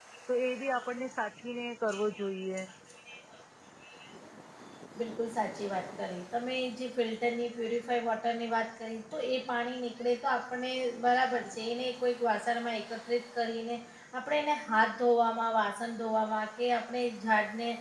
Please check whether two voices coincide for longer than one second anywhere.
No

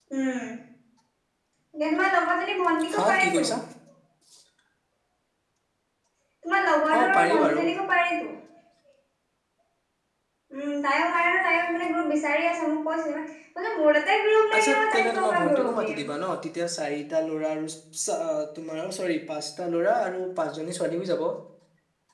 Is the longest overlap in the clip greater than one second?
Yes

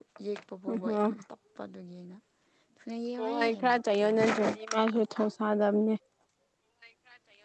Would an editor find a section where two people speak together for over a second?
Yes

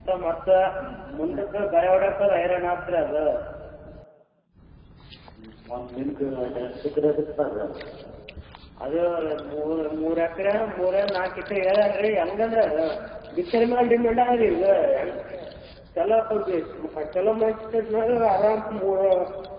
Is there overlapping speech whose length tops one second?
No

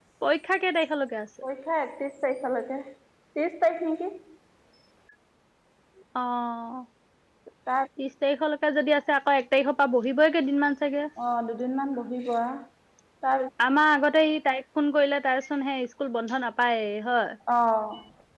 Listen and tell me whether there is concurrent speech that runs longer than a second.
No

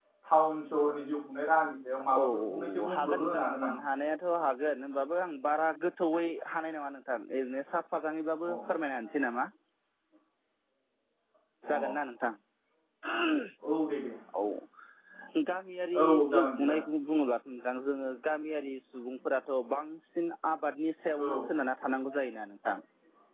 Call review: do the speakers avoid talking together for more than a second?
No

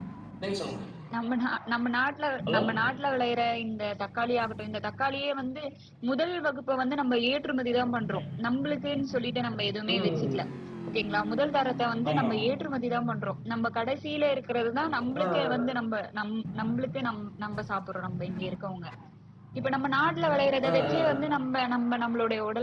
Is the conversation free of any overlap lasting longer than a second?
Yes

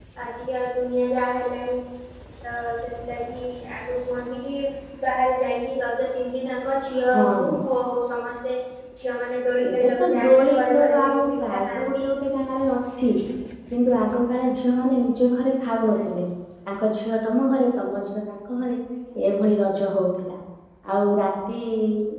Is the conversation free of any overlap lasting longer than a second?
No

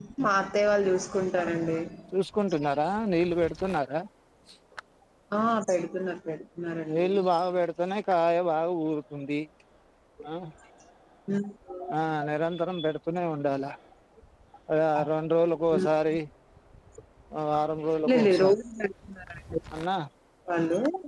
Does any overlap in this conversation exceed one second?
No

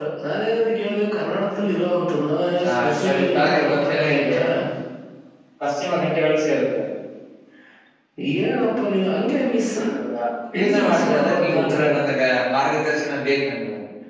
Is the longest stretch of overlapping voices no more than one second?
No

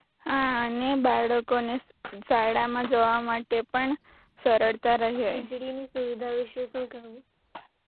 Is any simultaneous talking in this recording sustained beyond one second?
No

